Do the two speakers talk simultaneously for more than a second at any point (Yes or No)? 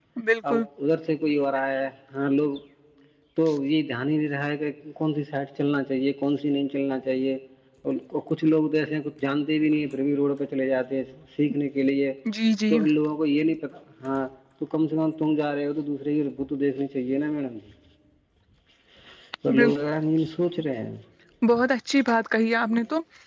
No